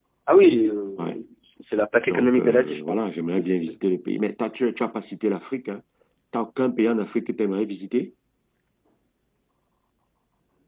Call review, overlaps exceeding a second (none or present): present